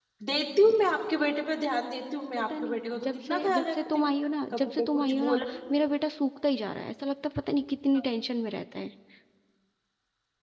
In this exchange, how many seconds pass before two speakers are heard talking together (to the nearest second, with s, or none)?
3 s